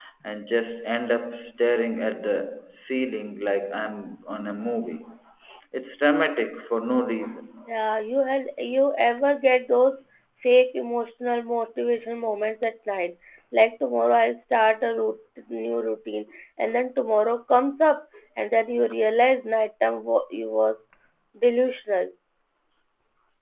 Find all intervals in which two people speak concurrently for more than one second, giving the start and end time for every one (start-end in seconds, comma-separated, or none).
none